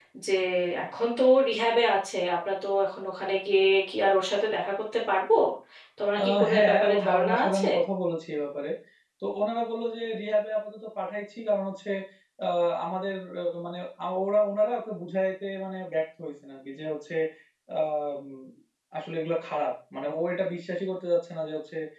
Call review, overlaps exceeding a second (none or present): present